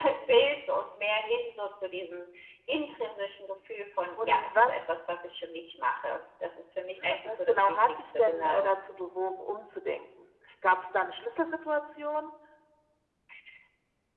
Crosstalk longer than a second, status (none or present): present